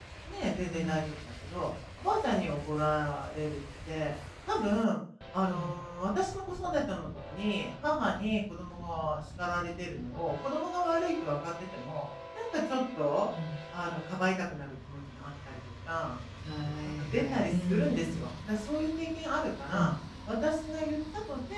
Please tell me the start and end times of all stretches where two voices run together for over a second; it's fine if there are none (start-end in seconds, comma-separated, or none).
17.0-18.3